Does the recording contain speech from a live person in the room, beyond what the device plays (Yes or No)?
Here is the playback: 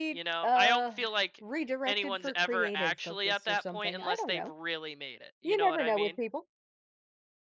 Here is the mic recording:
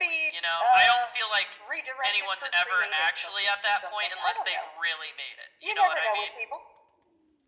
No